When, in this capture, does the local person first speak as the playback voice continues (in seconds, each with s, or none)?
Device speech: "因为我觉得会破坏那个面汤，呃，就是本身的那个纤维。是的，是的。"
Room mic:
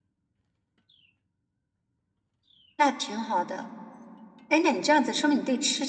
2.8 s